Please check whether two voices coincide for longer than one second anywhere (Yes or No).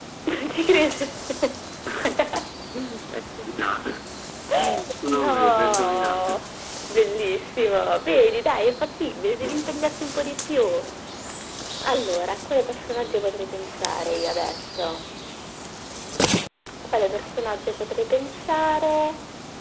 Yes